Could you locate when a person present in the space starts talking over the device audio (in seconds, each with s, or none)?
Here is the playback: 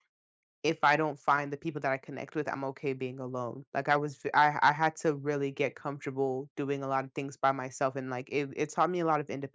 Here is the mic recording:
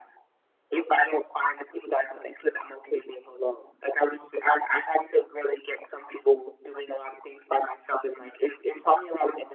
none